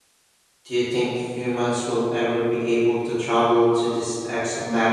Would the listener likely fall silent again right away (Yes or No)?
No